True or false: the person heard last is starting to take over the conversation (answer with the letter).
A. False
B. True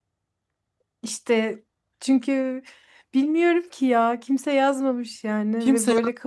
B